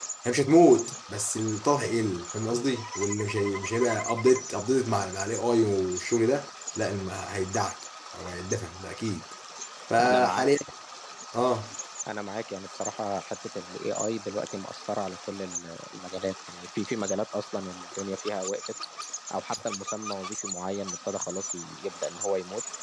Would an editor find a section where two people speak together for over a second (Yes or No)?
No